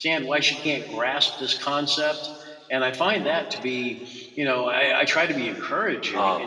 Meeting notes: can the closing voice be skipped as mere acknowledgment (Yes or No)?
No